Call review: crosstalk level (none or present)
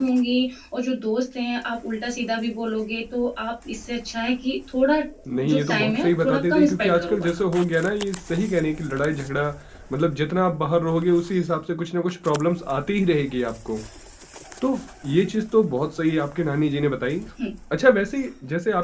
present